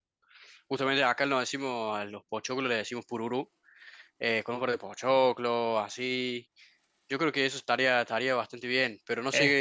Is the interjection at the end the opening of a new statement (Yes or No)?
No